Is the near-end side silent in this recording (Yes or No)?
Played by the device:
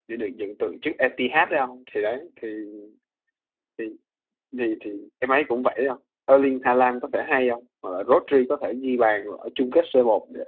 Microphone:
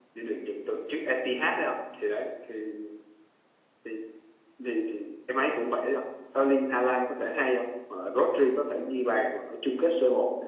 Yes